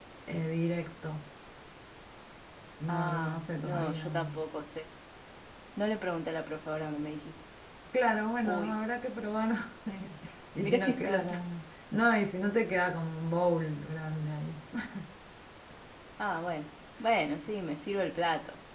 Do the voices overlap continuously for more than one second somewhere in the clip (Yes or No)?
Yes